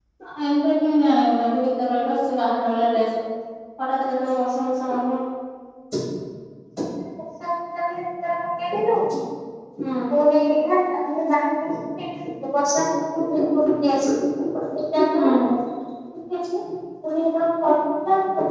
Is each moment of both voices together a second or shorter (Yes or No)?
Yes